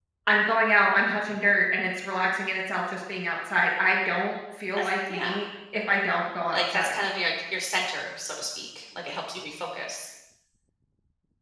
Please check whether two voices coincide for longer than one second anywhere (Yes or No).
No